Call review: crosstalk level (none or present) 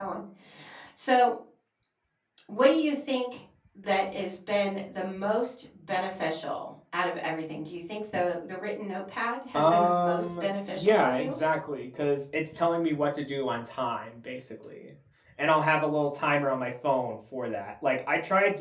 present